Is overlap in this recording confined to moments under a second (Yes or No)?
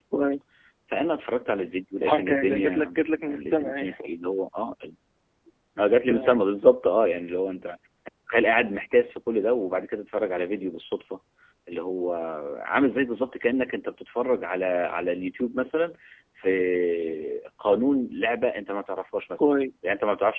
No